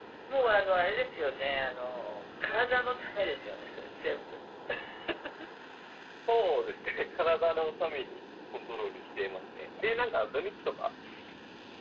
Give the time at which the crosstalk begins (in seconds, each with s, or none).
none